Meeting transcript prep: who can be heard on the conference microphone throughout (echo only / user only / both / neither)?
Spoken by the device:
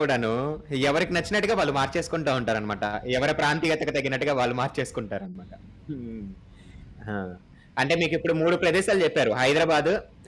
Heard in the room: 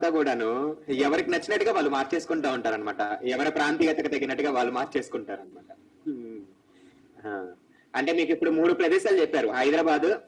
echo only